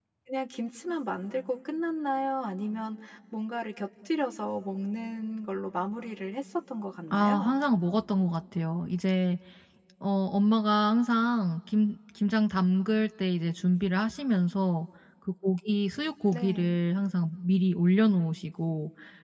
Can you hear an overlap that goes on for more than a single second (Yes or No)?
No